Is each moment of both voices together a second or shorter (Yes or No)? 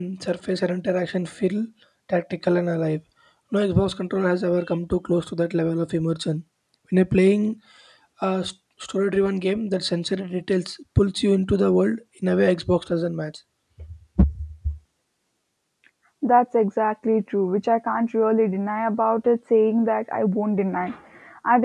Yes